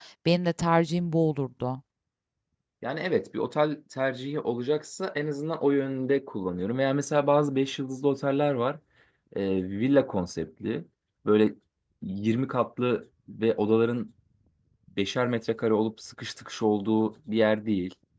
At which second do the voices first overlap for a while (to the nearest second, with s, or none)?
none